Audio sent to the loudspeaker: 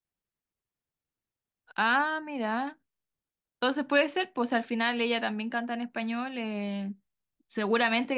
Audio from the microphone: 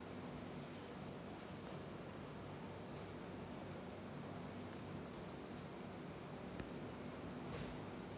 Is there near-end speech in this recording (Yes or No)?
No